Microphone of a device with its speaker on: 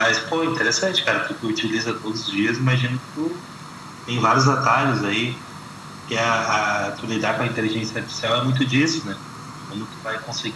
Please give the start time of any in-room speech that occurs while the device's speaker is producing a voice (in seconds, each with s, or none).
none